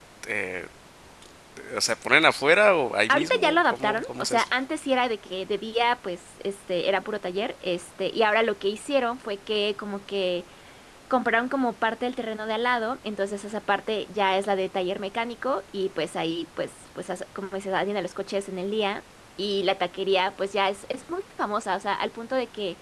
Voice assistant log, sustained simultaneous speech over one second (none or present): present